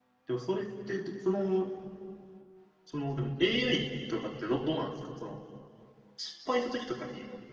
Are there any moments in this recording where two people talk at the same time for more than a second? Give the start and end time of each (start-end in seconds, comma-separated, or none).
none